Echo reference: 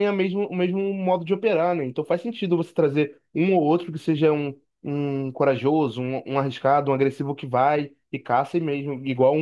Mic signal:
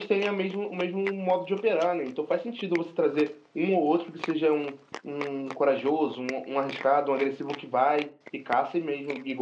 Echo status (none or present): present